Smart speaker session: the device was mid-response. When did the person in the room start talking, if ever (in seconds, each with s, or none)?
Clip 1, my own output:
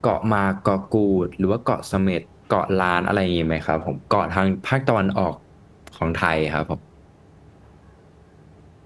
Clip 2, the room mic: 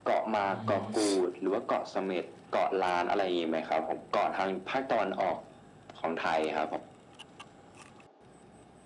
0.4 s